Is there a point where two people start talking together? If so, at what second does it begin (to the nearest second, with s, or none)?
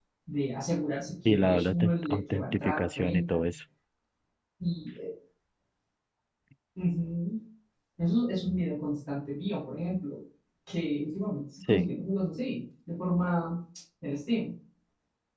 1 s